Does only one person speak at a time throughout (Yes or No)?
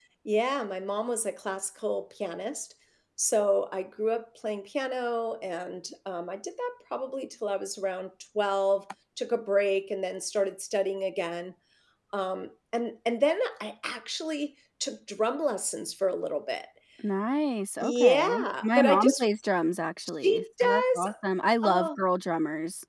No